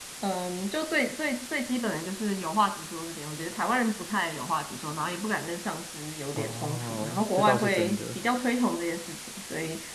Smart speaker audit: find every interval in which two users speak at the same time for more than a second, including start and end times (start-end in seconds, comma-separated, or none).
6.4-8.2